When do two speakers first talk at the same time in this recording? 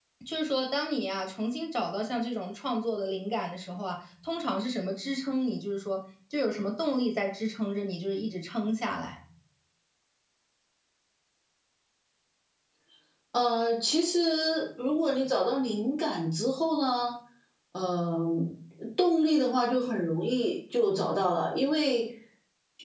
none

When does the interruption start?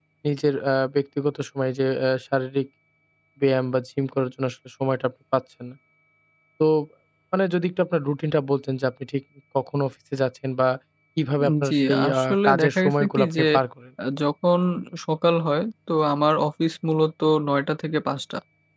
11.4 s

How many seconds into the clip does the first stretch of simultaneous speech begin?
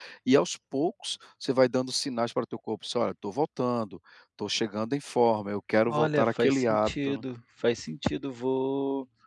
5.9 s

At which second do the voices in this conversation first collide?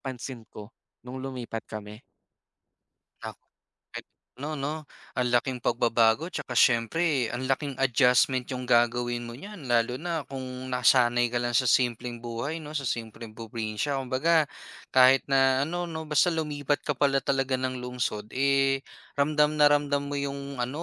none

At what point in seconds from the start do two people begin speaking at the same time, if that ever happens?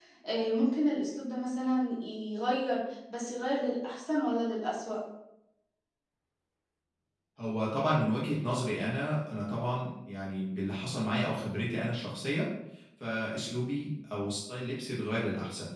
none

